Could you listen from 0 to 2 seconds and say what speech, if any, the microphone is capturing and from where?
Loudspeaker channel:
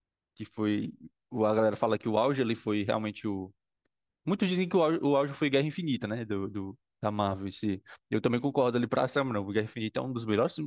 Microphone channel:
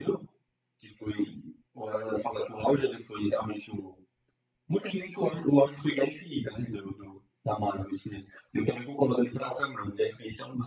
echo only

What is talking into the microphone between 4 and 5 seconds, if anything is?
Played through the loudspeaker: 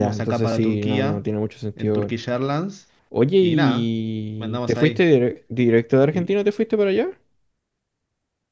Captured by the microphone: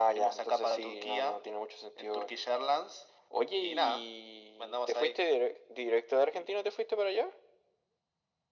echo only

